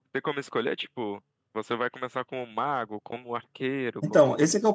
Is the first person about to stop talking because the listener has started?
Yes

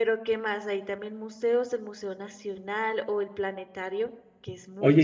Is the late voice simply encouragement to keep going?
No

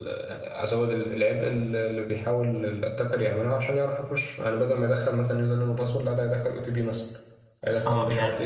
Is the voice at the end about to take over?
Yes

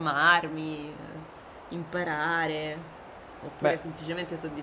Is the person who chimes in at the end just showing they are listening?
Yes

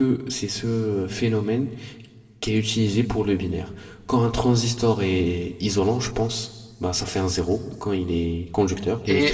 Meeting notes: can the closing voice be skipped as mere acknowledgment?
No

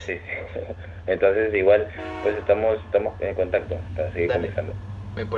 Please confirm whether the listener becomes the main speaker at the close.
Yes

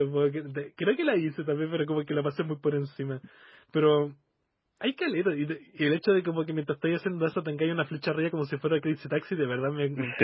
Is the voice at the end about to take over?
Yes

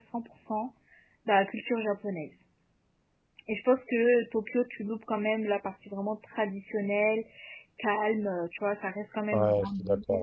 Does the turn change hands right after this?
Yes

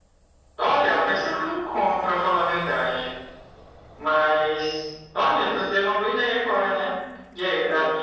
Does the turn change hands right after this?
No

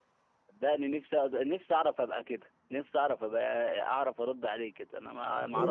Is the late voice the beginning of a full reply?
Yes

